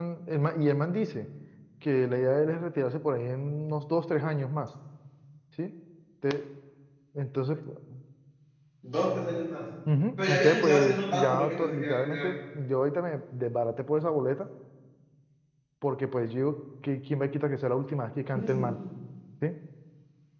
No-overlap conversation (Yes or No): No